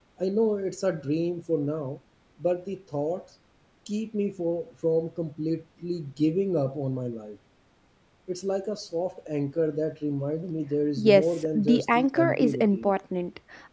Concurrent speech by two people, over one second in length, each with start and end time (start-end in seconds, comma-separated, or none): 11.0-12.9